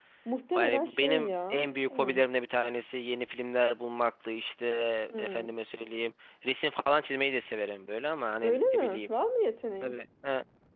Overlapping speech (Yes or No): Yes